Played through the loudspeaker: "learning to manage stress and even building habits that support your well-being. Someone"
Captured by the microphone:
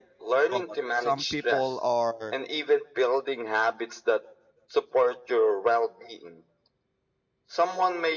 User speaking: Yes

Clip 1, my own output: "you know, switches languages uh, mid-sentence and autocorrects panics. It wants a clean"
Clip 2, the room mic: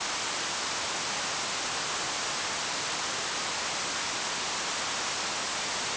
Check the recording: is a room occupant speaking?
No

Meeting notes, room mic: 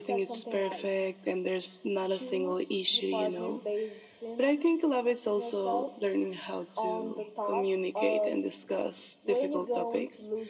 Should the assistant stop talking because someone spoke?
No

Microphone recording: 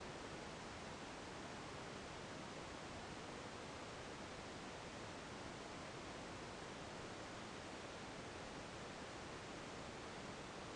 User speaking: No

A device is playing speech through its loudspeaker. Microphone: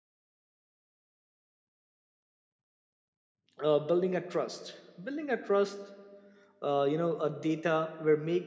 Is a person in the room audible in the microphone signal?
Yes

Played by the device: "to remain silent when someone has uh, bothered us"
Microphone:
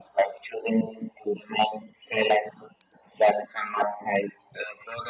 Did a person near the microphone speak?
No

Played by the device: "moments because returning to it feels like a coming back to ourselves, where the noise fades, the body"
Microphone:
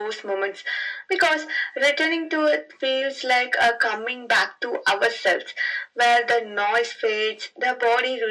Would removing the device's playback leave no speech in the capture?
Yes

